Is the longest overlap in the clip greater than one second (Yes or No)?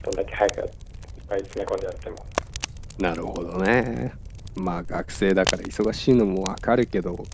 No